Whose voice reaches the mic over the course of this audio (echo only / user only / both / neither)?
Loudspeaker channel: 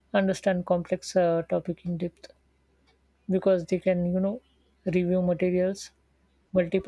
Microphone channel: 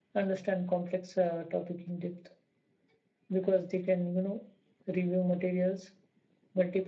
echo only